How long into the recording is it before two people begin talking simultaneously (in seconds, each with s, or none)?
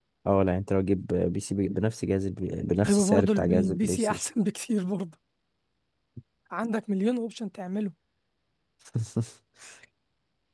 2.8 s